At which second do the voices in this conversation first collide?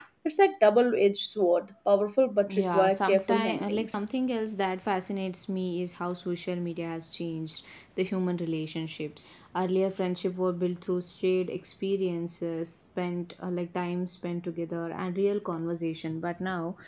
2.5 s

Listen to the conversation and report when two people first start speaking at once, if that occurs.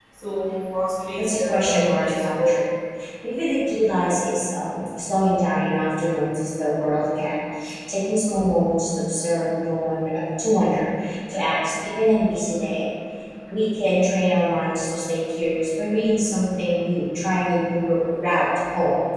1.2 s

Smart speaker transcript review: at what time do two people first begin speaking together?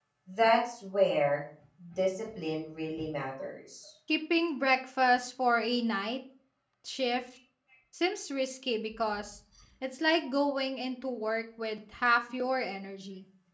none

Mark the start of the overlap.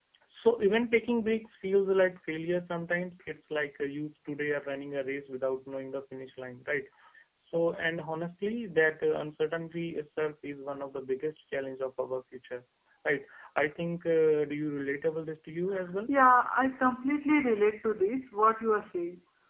none

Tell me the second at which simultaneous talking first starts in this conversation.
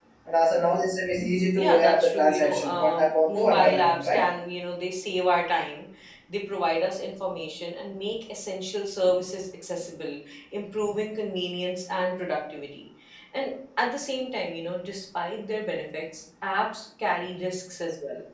1.6 s

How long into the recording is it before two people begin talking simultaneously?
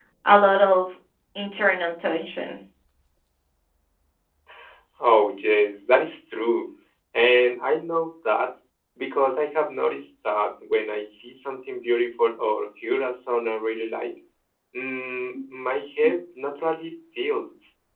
none

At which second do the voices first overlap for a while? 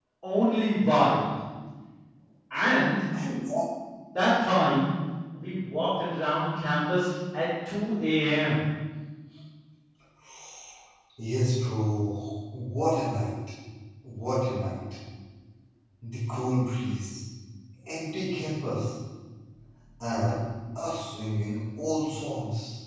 none

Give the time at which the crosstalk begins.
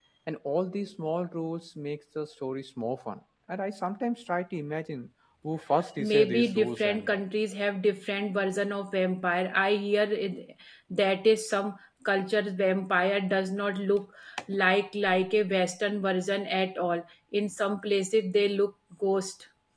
6.0 s

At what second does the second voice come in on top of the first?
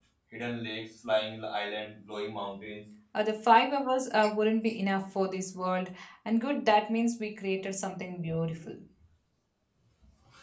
none

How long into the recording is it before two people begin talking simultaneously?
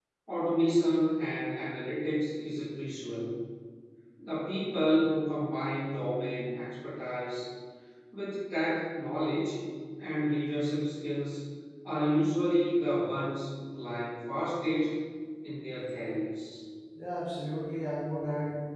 none

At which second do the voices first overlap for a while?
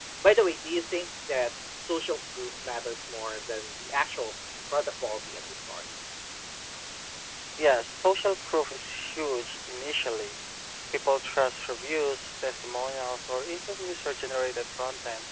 none

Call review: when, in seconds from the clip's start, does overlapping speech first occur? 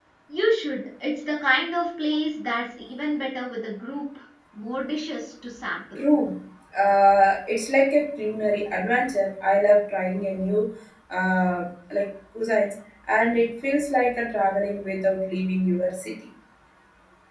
none

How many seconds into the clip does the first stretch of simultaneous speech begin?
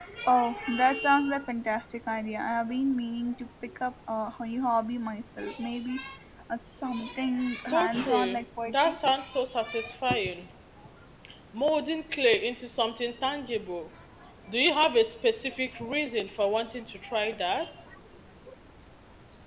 7.7 s

